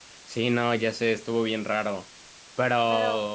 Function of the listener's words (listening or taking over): listening